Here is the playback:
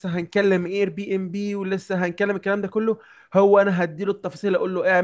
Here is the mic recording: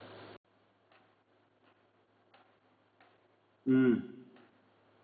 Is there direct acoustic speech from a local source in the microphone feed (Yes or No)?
Yes